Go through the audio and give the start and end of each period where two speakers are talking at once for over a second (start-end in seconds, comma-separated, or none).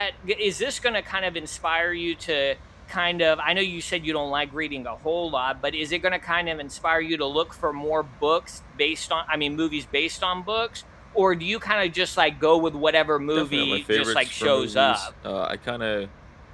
13.3-15.1